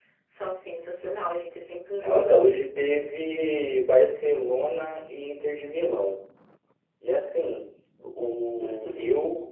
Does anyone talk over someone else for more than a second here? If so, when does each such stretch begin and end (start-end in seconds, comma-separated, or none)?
none